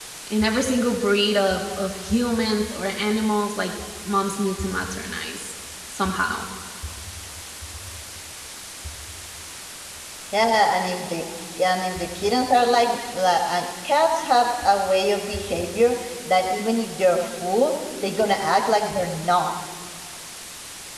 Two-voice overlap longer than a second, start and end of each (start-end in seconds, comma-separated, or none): none